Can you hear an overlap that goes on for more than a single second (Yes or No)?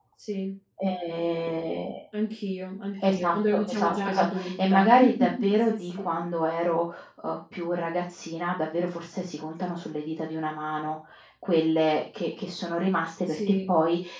Yes